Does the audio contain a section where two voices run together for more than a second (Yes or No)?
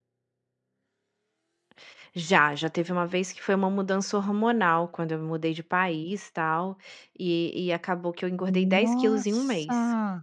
Yes